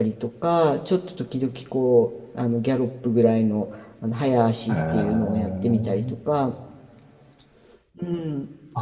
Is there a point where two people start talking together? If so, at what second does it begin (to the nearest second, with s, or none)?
5 s